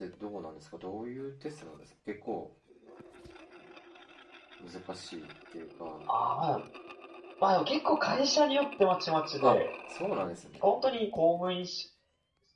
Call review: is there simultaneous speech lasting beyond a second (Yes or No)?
No